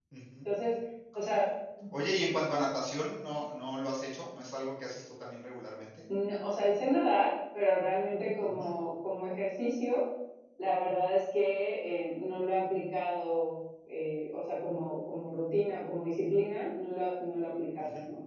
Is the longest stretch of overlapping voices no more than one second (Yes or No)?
Yes